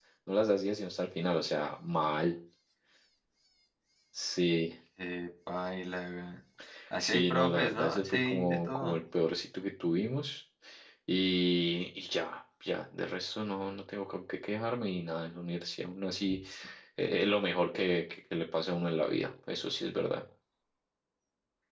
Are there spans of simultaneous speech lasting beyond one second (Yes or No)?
Yes